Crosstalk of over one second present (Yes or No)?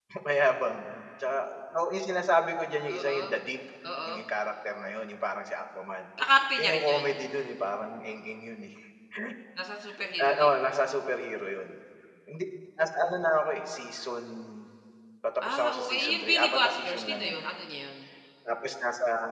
Yes